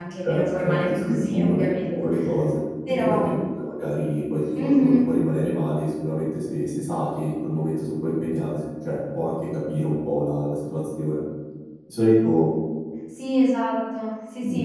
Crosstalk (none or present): present